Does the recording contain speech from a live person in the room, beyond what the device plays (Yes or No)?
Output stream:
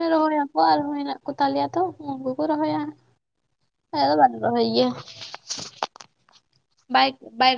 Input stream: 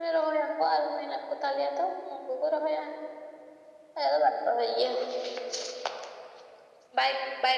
No